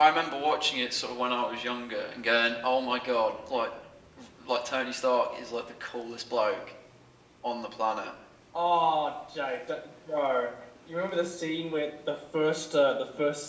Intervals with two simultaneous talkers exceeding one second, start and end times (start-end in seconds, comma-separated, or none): none